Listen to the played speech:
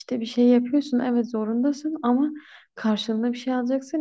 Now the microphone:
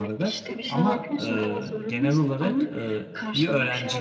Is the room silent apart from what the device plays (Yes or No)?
No